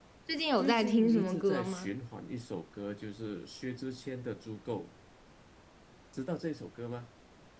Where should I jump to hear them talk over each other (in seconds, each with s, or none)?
0.6 s